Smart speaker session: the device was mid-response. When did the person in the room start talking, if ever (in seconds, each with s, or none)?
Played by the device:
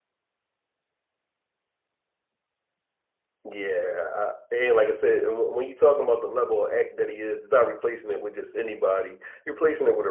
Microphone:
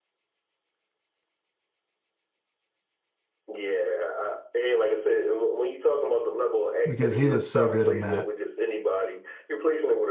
6.9 s